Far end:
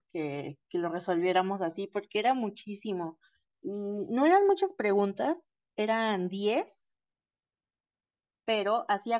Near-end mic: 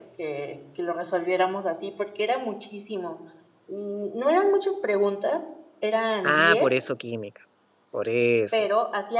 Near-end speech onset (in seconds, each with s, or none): 6.2 s